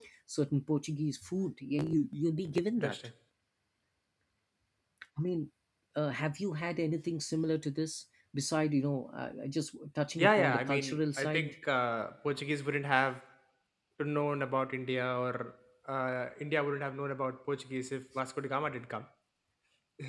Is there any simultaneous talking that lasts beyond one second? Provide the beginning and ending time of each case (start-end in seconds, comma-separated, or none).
10.2-11.6